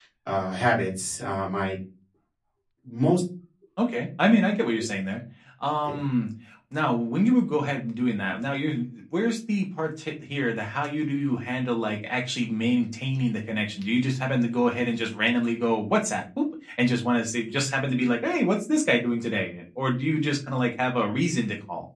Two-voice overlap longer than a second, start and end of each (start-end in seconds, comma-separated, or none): none